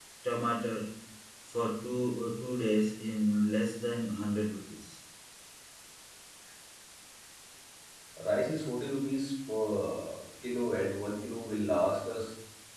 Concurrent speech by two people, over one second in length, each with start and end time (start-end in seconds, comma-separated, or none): none